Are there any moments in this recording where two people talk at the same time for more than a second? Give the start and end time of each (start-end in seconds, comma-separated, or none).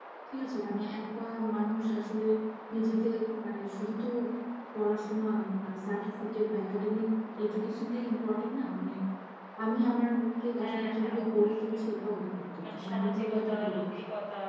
10.6-11.8, 12.6-13.9